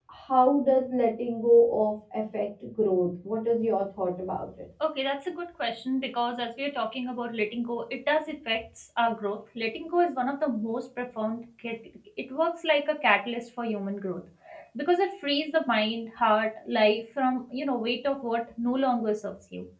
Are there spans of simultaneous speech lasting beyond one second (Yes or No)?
No